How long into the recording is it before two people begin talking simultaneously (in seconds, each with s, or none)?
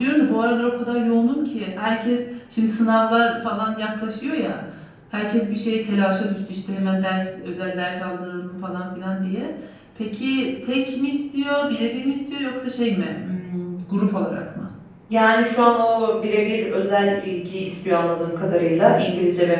none